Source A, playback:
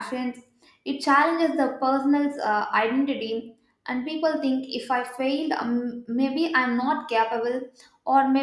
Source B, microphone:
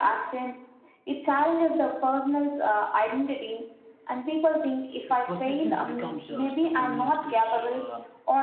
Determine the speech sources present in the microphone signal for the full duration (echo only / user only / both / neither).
both